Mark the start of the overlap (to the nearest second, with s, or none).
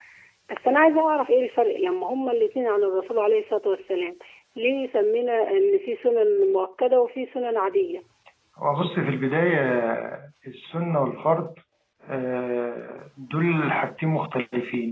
none